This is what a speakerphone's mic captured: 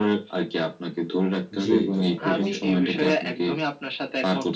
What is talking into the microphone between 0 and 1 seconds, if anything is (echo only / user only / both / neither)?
echo only